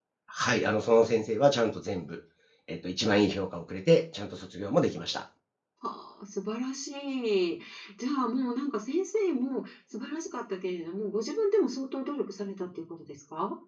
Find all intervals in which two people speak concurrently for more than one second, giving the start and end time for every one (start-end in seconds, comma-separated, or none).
none